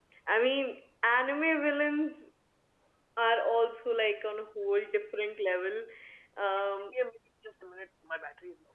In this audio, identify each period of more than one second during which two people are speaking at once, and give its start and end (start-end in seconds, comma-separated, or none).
none